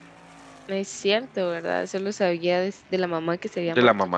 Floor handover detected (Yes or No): Yes